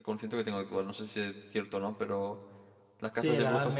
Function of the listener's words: taking over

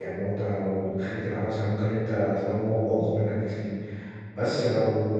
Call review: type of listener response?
listening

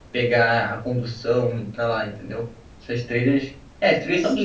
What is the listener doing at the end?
taking over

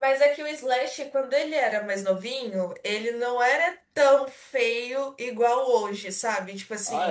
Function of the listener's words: listening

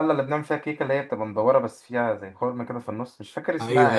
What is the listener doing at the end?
taking over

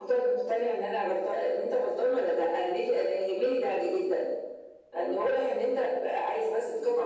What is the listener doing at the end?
taking over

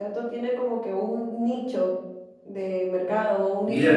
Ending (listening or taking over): taking over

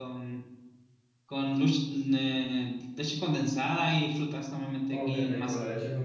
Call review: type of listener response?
taking over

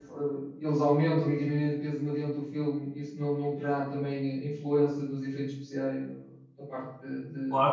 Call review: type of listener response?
taking over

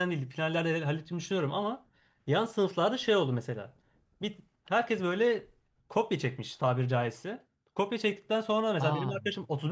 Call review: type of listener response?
listening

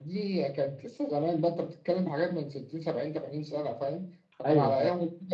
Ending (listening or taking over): listening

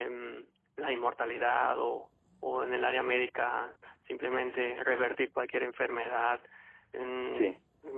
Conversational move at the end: listening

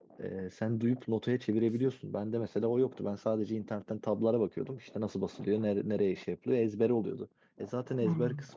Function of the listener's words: listening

